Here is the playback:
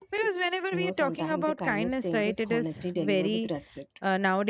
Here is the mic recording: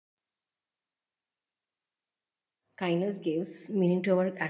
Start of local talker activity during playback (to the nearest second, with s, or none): 3 s